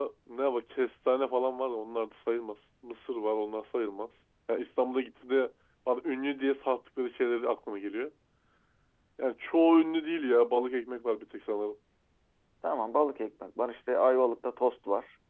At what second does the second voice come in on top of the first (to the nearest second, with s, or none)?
none